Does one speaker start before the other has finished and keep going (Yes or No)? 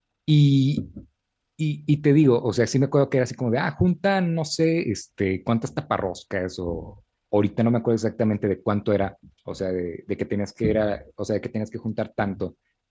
No